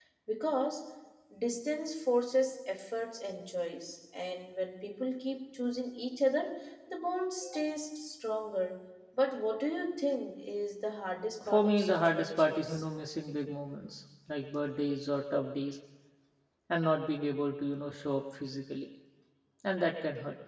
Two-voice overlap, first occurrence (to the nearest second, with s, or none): 11 s